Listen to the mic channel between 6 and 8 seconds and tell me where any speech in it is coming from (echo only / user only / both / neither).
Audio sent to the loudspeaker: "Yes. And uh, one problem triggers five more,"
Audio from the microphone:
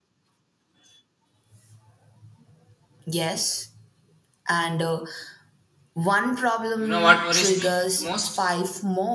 both